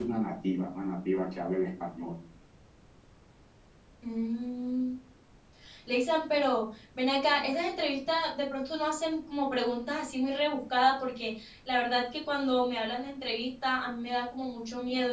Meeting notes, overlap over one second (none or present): none